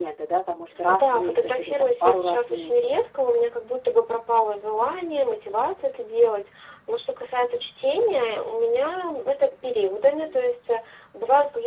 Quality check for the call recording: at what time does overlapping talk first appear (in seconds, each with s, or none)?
0.9 s